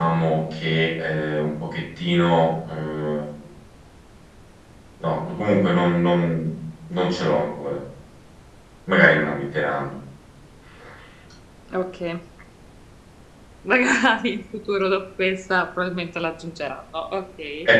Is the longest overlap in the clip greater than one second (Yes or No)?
No